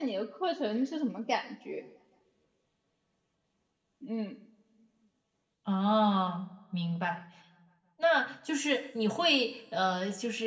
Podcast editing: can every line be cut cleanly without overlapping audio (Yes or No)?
Yes